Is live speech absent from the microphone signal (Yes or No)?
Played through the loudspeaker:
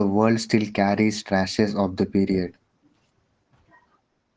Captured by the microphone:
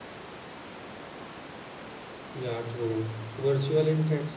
No